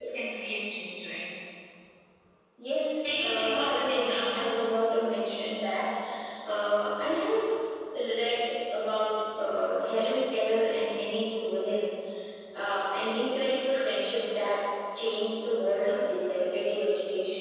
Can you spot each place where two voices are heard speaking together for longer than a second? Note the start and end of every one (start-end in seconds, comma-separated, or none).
3.0-4.6